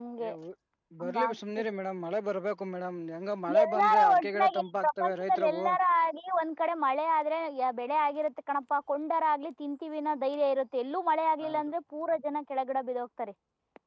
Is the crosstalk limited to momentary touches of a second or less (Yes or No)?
No